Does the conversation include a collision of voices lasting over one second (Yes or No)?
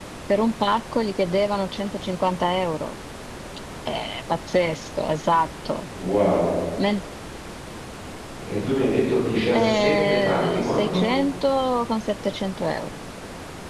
Yes